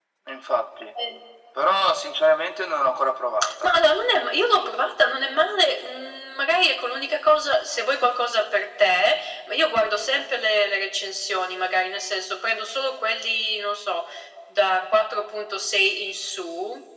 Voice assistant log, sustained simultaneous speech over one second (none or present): none